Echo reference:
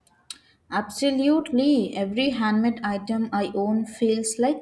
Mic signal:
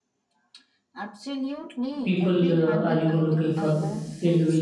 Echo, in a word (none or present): present